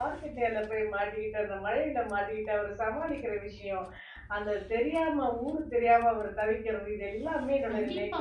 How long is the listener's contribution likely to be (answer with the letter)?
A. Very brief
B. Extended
B